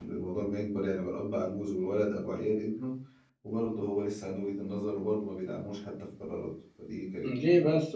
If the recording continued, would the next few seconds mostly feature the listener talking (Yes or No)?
Yes